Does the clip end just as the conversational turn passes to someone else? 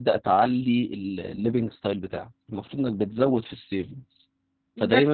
No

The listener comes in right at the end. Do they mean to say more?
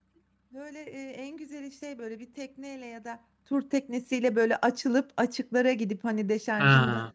No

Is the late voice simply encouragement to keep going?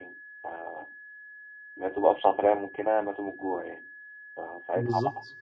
Yes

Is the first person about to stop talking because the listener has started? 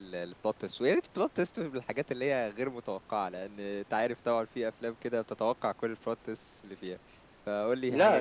Yes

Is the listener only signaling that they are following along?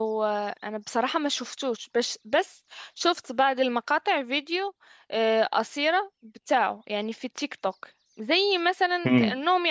Yes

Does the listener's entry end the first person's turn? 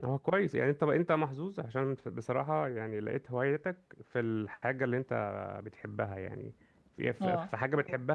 No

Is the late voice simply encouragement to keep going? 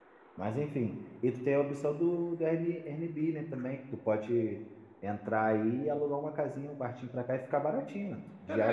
No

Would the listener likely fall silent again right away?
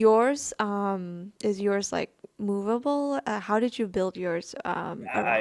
No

